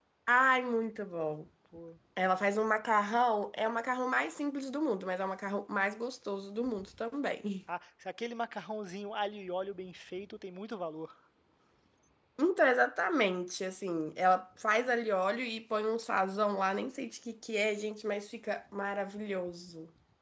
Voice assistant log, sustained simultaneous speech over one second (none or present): none